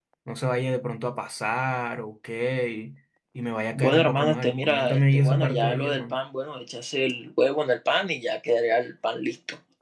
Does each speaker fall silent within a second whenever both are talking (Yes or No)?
No